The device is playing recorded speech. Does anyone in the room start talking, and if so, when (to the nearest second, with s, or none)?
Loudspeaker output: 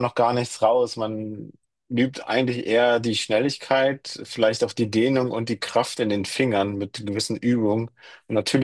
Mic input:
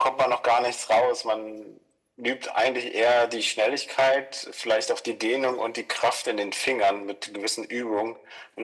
none